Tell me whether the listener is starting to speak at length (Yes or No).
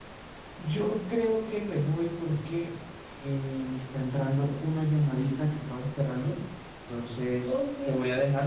No